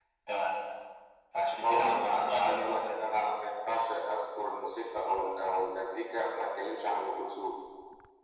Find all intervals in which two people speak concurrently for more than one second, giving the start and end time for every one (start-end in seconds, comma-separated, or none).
1.6-3.2